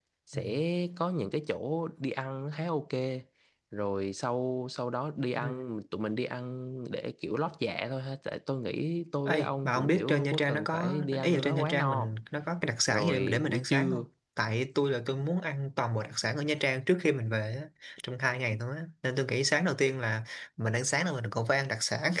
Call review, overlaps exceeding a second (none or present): present